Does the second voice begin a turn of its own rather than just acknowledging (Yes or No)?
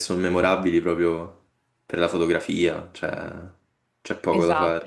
Yes